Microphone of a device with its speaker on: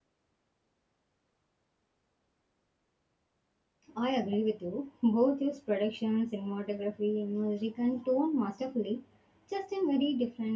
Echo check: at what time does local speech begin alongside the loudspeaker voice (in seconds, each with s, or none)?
4.0 s